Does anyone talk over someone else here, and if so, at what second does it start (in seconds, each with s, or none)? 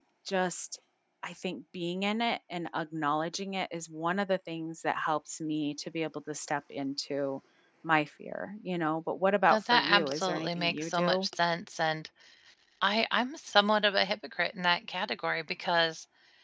9.5 s